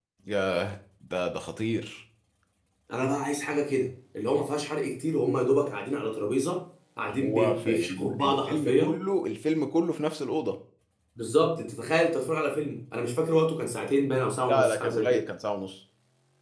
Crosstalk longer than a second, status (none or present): present